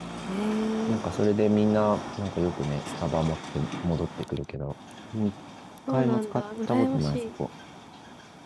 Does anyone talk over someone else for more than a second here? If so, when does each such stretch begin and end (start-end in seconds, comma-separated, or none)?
5.9-7.2